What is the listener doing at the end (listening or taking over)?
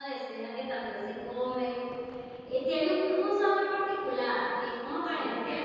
listening